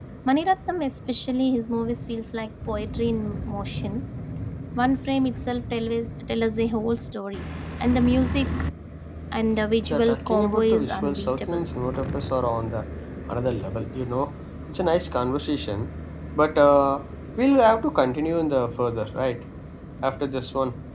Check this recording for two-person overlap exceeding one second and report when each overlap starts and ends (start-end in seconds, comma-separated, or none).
9.9-11.7